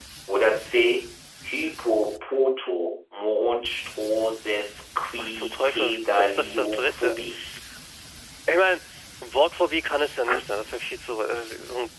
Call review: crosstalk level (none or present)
present